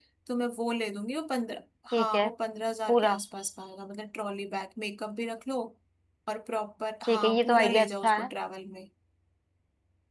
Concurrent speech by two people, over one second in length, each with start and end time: 7.0-8.3

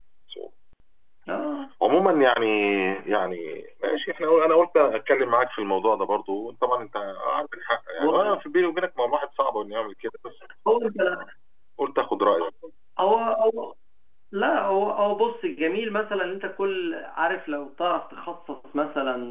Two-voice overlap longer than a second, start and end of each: none

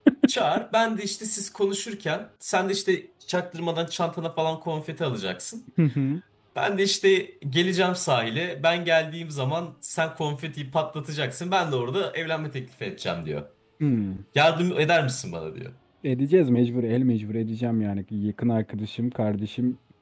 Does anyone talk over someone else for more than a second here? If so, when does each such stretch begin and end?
none

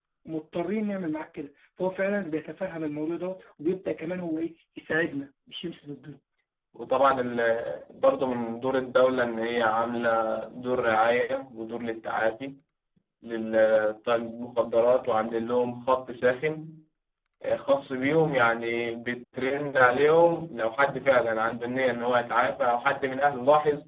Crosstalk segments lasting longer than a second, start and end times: none

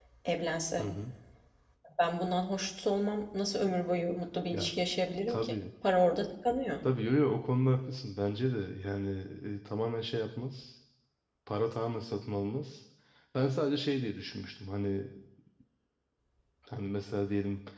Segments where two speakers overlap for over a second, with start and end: none

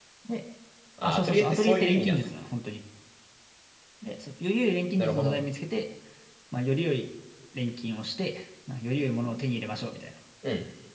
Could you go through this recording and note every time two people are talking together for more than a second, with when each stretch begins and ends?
1.0-2.2

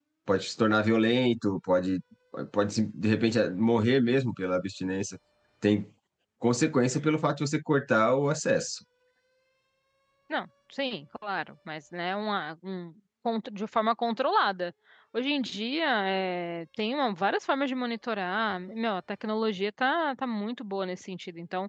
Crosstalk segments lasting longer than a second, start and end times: none

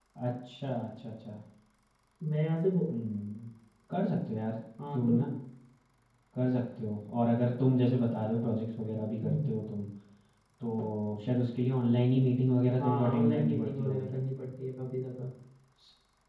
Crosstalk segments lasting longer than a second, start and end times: 12.8-14.1

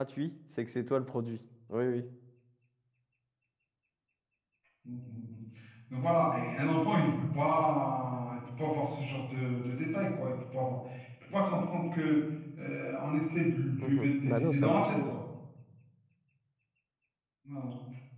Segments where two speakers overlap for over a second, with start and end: 13.8-15.1

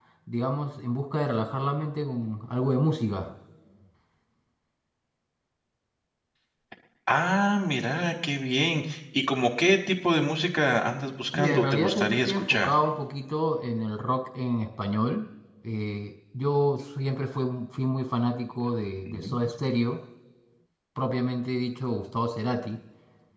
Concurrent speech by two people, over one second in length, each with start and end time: 11.3-12.7

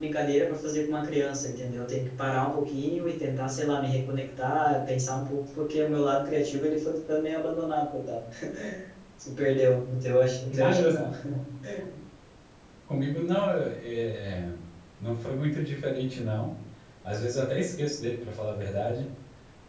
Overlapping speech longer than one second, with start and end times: none

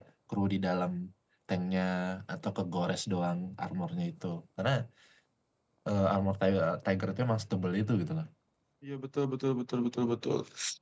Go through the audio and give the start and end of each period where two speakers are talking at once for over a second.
none

